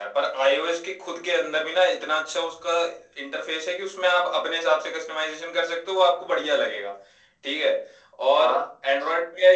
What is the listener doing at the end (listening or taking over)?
listening